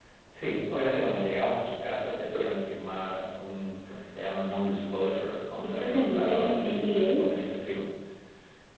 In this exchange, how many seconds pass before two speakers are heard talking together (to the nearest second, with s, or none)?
6 s